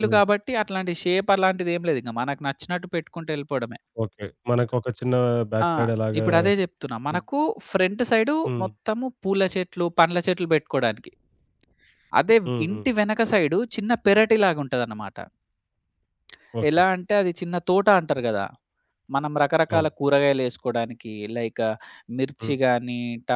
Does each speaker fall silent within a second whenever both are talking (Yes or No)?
Yes